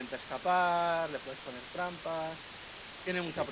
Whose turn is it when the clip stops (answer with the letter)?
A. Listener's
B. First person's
B